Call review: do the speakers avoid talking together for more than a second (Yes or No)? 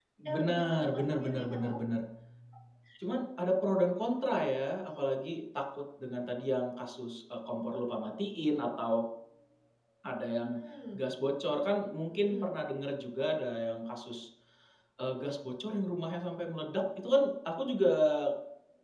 No